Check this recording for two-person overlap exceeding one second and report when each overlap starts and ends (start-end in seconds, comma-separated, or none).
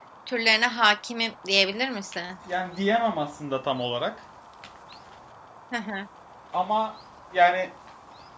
none